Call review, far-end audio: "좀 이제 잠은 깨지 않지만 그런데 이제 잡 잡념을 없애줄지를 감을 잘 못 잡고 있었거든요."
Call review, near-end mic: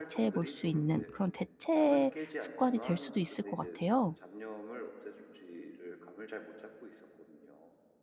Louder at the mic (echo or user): user